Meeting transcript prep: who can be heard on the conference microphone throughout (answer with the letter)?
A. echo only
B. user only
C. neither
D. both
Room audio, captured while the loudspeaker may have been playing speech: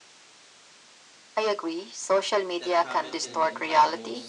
D